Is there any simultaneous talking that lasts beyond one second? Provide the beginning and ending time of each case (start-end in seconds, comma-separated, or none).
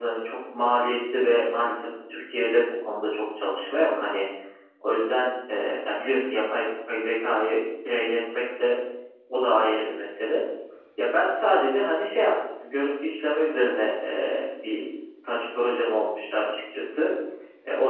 none